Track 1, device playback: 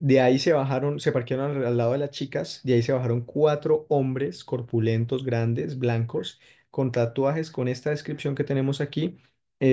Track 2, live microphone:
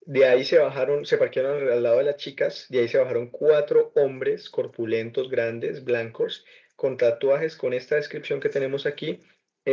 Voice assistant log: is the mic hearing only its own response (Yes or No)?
Yes